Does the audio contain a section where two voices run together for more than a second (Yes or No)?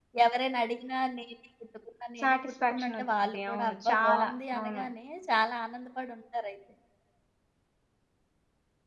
Yes